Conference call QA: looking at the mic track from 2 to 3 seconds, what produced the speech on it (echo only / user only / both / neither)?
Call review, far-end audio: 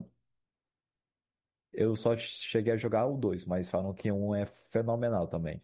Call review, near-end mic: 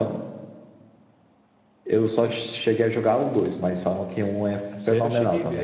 echo only